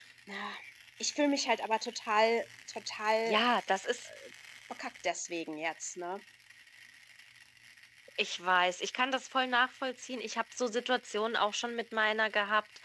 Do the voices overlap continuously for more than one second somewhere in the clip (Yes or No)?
No